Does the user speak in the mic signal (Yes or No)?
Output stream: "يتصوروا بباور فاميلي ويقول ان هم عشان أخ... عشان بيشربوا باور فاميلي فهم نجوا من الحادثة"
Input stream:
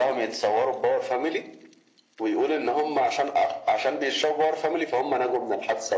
No